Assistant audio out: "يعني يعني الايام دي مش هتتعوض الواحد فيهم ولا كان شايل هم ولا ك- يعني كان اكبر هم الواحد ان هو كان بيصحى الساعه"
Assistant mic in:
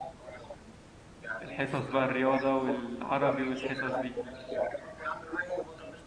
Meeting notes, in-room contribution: present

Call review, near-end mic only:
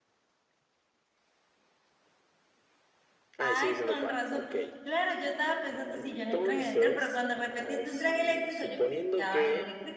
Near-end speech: present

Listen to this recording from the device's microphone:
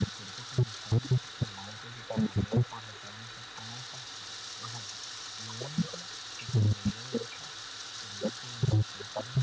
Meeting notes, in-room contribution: none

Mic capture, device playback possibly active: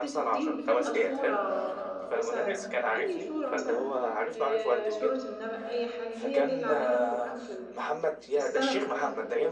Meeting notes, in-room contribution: present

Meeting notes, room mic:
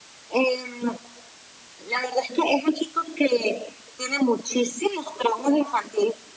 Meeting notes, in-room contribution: none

